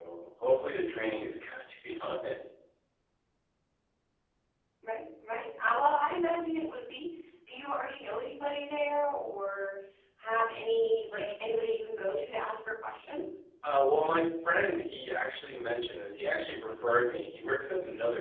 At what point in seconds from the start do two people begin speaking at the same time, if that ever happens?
none

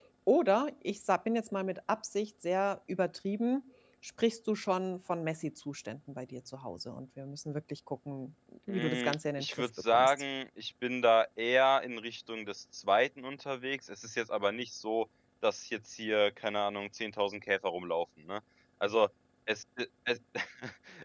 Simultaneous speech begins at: 8.7 s

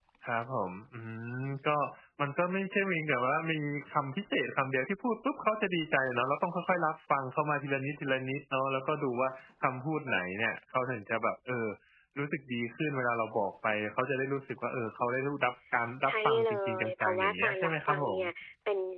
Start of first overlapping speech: 16.0 s

